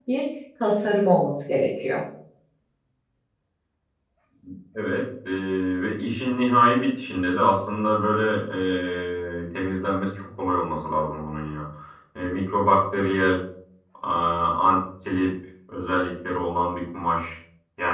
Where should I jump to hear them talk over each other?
none

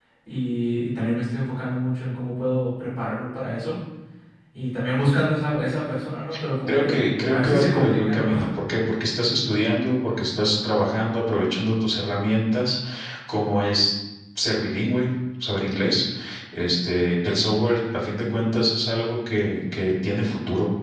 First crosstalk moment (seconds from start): 6.7 s

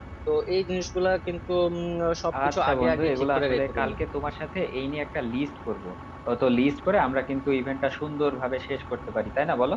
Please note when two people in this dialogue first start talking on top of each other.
2.5 s

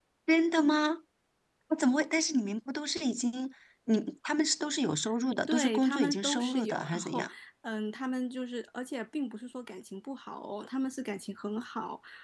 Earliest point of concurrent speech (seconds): 5.5 s

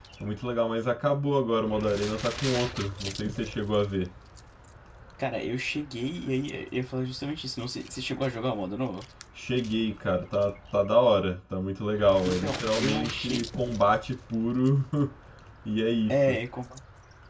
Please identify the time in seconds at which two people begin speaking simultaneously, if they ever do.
12.2 s

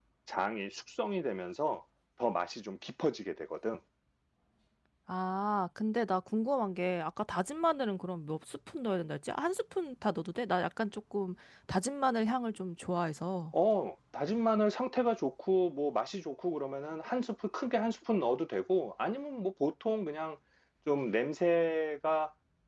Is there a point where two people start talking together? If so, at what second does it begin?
none

